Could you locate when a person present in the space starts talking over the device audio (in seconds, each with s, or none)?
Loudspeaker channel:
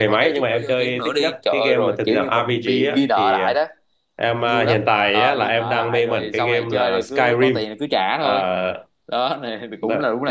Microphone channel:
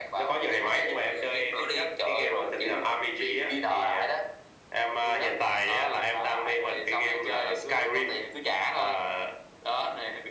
none